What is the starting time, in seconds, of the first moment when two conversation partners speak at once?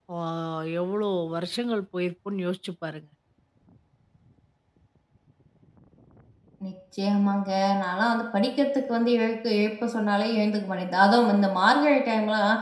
none

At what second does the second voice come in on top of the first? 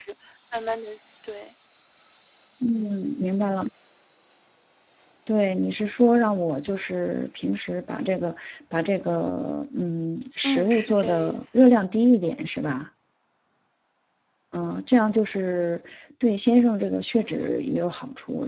10.4 s

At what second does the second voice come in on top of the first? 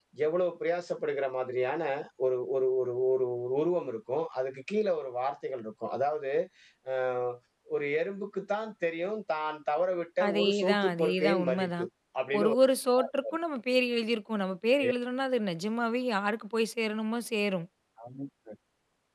10.3 s

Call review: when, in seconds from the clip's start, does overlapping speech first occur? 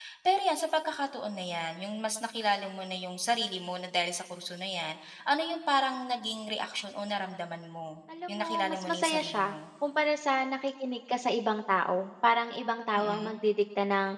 8.3 s

